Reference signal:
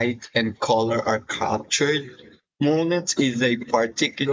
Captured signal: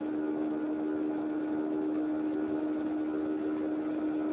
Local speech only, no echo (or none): none